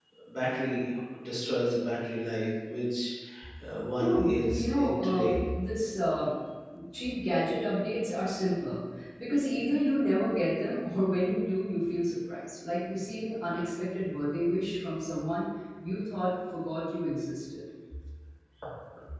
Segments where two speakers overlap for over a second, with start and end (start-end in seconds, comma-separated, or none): 4.0-5.3